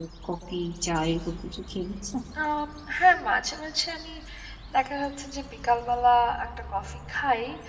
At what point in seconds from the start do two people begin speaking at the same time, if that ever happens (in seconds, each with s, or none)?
none